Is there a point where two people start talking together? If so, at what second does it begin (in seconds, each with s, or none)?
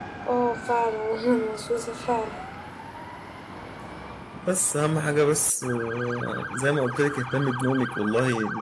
none